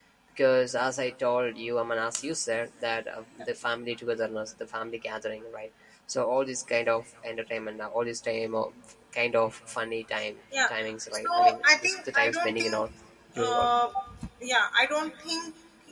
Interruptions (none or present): present